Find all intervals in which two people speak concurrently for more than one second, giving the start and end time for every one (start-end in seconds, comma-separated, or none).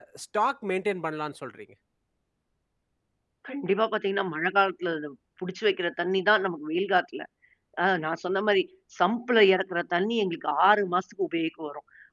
none